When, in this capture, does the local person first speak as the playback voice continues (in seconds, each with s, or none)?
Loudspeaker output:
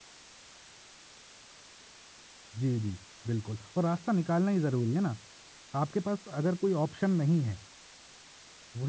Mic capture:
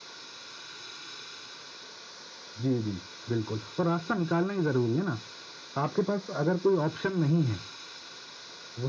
none